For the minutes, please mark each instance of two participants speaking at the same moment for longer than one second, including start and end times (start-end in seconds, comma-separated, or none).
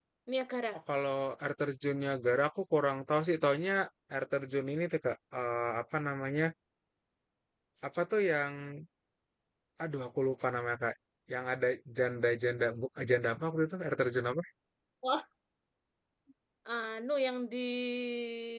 none